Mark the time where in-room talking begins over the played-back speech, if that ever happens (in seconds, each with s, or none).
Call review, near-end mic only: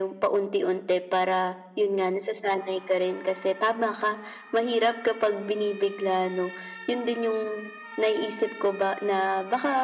none